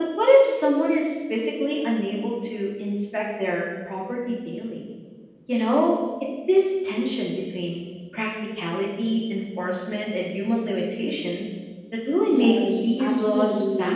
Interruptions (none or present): present